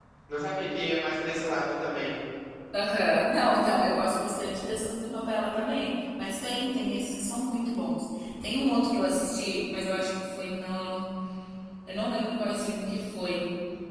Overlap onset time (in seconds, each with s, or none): none